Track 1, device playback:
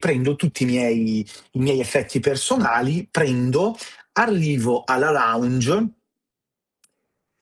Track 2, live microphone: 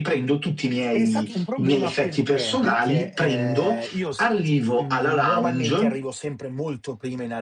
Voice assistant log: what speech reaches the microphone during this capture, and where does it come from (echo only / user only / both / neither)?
both